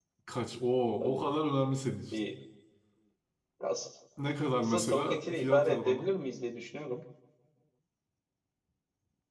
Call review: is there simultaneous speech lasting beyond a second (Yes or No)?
Yes